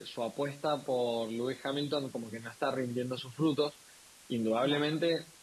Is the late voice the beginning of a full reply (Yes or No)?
No